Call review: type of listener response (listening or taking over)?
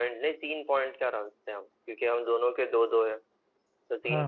listening